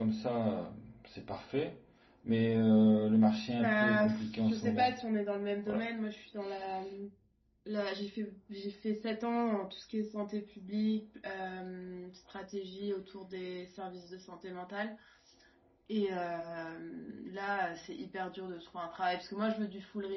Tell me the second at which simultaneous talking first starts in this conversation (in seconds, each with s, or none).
3.6 s